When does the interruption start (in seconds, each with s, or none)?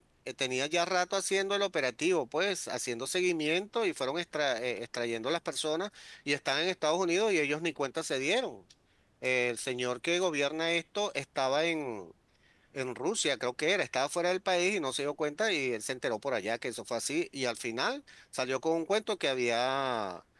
none